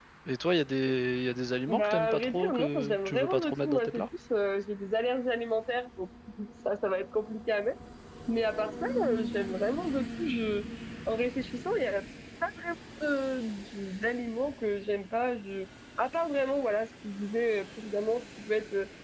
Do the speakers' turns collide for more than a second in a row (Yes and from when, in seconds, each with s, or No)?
Yes, from 1.7 s